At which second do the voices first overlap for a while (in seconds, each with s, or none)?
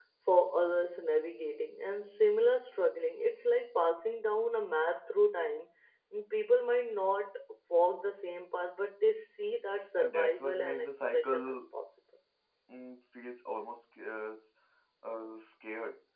10.0 s